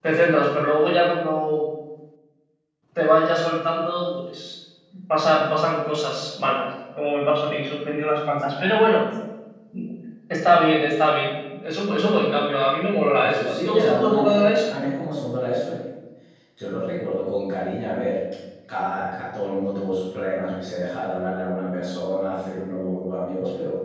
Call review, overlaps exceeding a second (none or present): present